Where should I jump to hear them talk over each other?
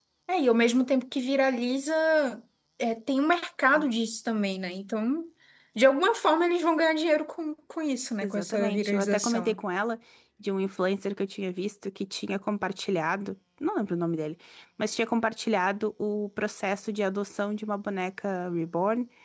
8.2 s

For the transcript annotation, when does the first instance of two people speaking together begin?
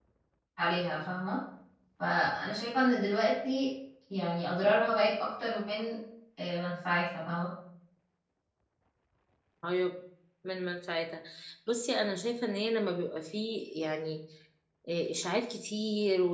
none

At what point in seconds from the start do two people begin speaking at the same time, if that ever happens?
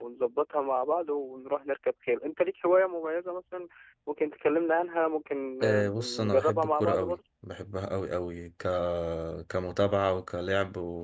5.6 s

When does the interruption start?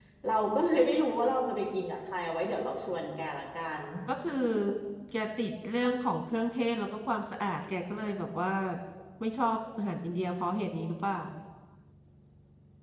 none

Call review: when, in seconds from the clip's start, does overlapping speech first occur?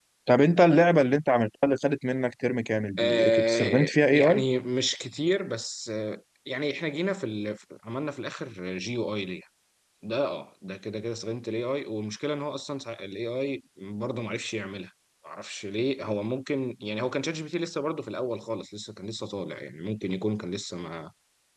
3.0 s

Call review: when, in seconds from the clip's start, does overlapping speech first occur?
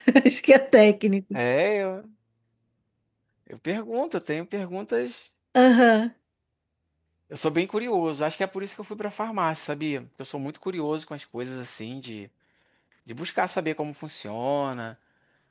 none

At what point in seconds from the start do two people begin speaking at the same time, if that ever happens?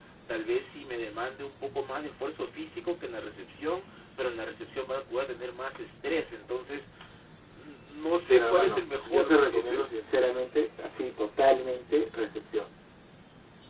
8.2 s

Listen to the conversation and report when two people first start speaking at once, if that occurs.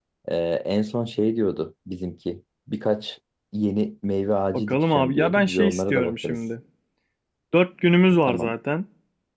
4.5 s

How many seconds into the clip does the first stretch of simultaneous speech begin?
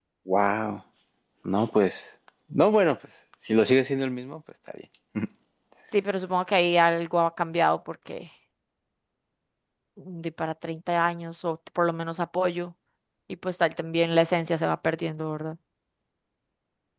none

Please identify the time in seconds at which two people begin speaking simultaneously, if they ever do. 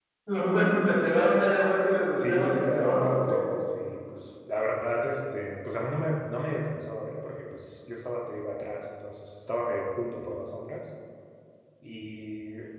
2.2 s

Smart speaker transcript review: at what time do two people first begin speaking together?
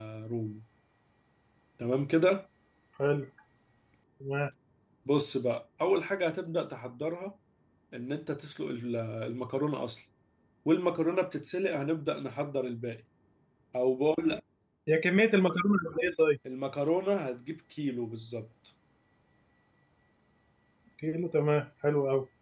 none

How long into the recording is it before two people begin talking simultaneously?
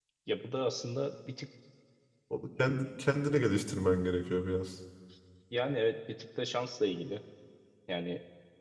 none

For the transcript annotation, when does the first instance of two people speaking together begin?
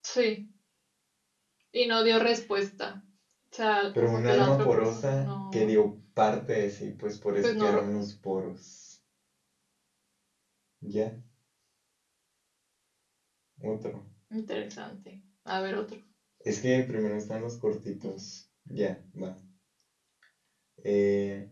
4.0 s

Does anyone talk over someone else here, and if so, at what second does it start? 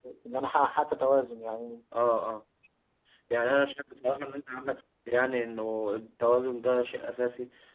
none

